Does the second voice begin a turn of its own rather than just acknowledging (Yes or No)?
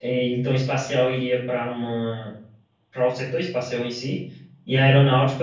No